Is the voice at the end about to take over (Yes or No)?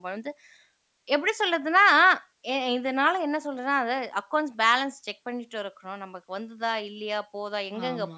No